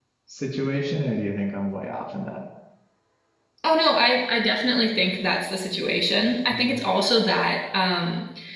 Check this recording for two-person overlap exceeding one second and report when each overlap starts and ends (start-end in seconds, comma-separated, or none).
none